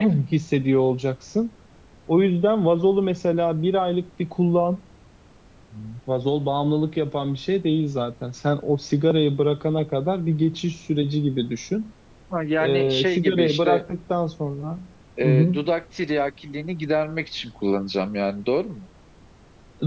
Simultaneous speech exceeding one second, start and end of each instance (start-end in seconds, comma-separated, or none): 12.6-13.8